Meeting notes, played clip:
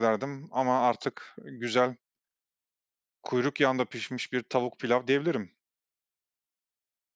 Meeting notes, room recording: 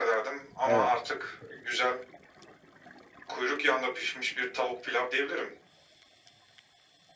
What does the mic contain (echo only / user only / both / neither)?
both